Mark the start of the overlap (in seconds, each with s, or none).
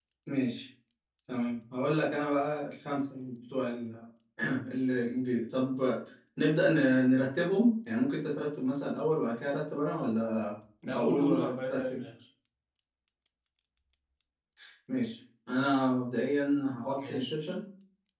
10.8 s